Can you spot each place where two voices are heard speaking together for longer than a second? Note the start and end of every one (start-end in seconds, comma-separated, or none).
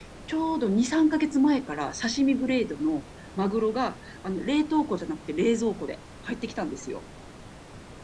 none